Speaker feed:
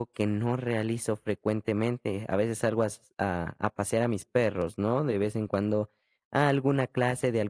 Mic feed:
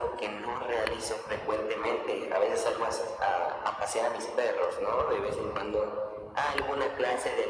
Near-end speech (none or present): none